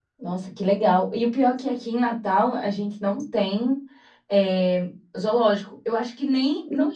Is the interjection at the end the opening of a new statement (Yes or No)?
No